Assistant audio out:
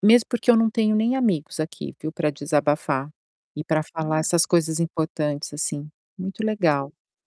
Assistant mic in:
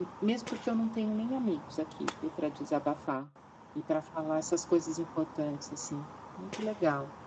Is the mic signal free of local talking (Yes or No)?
Yes